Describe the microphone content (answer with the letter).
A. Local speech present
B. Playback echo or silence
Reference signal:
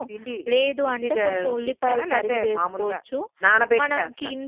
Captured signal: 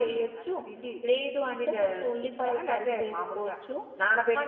B